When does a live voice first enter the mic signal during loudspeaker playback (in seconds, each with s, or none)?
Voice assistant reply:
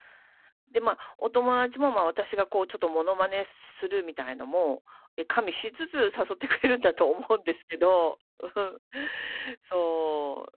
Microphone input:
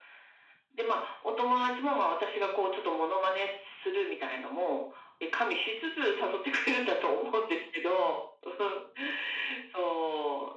none